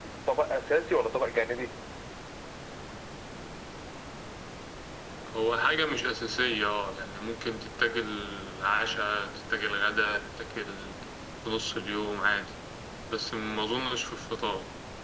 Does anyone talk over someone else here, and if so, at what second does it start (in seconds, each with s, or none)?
none